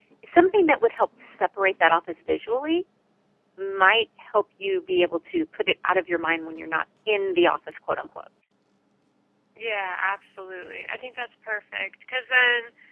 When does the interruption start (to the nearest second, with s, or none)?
none